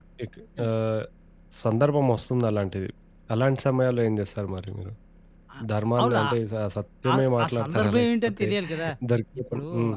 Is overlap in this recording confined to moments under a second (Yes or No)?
No